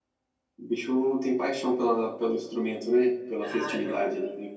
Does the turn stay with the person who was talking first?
No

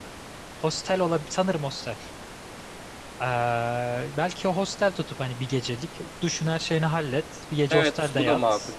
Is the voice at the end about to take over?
Yes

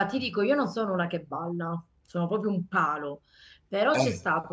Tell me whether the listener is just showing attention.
Yes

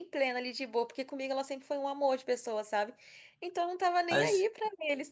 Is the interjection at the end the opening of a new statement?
No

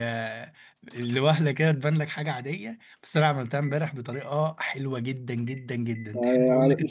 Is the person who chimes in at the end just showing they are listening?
No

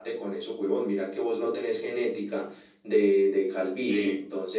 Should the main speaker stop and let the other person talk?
No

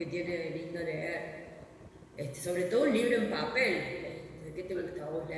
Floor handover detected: No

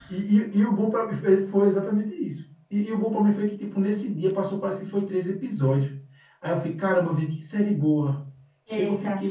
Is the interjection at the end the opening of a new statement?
Yes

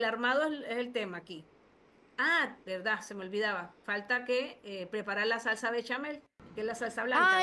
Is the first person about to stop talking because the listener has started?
Yes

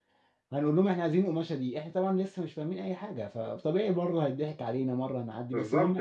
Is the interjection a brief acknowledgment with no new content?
Yes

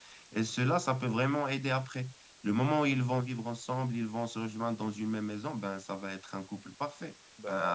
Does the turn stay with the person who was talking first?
Yes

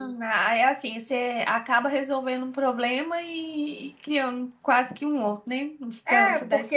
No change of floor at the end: No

